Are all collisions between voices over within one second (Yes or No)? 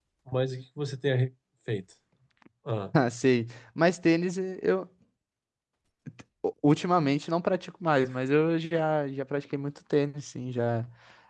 Yes